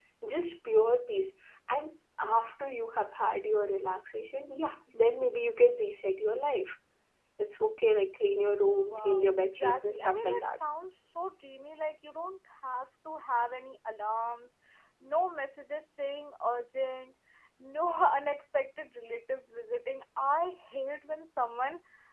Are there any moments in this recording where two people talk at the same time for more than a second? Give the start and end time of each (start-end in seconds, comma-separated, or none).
8.7-10.6